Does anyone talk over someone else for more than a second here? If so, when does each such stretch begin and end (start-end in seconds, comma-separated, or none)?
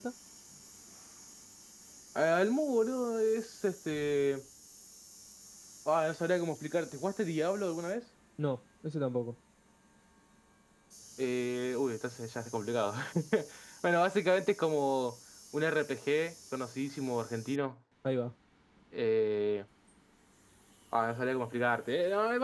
none